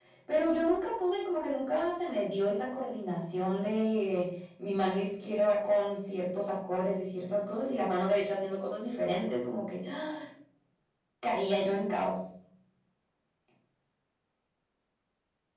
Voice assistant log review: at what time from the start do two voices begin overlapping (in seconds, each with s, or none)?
none